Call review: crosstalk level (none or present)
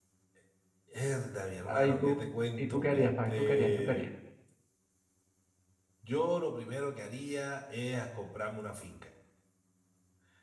present